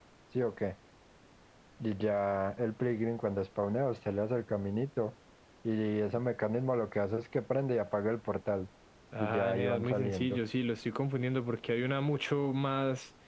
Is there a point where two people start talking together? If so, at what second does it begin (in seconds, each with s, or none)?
9.2 s